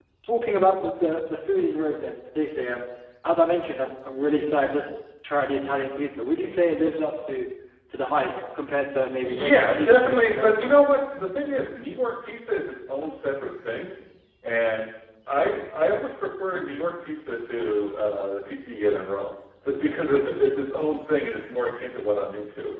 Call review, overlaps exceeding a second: present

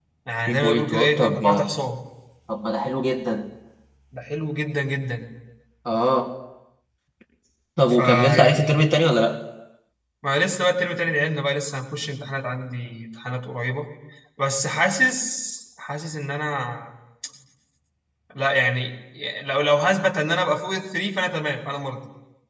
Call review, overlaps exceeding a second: present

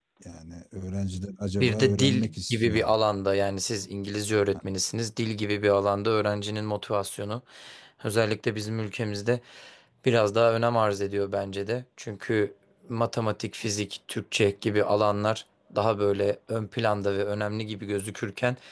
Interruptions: present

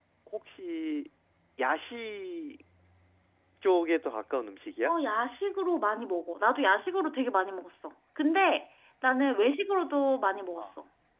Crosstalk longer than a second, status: none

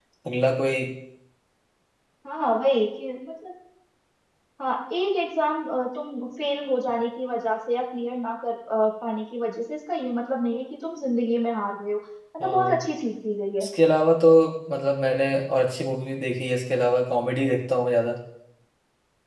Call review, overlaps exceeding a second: none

